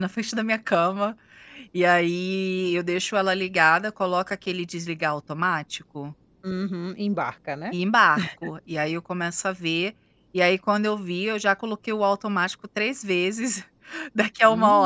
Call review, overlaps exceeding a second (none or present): none